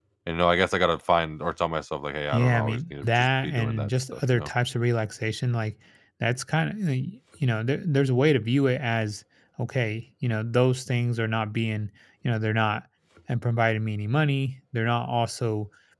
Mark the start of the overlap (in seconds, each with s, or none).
2.3 s